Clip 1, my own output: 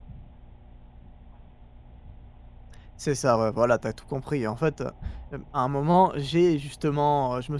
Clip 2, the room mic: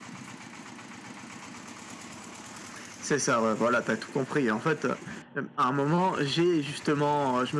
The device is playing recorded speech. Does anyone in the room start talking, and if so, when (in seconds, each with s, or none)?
none